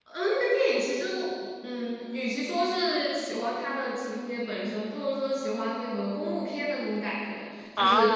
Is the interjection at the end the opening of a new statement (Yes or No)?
No